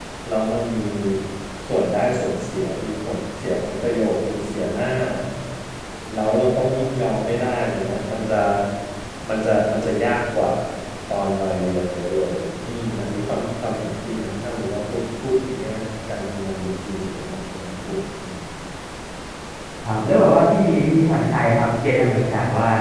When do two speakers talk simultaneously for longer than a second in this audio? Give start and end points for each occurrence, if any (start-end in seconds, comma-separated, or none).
none